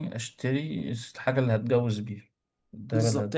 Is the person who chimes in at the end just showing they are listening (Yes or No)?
No